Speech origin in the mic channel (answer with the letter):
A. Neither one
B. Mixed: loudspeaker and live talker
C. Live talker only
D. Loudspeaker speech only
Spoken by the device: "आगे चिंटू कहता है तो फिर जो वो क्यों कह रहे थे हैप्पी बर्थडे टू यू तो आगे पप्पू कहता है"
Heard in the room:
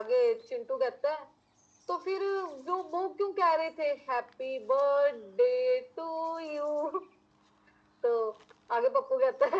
D